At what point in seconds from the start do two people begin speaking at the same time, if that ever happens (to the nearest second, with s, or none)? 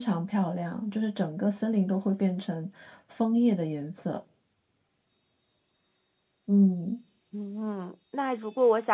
none